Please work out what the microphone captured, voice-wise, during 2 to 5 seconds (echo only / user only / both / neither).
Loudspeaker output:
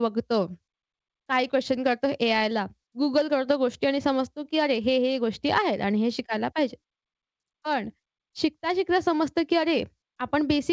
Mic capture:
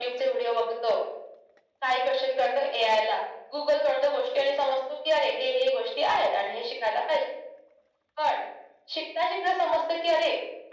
echo only